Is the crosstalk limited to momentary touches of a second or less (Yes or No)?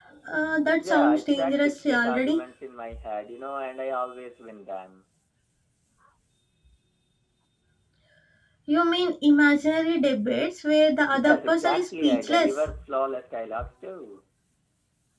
No